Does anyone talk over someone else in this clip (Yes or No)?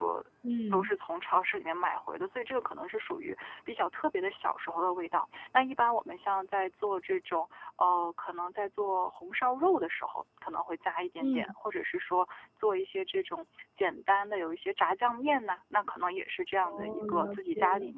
Yes